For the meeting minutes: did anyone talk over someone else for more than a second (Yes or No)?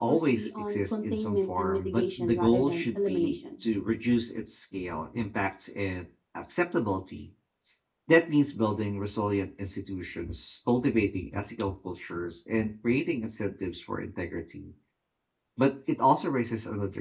Yes